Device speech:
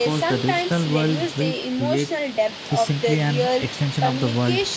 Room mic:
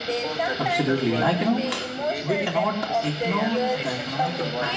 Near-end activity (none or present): present